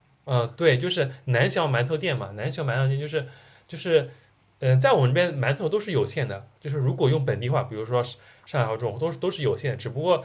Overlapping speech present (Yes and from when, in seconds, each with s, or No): No